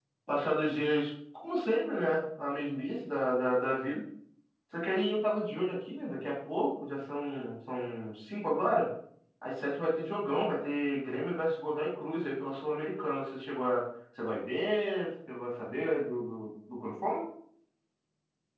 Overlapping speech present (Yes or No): No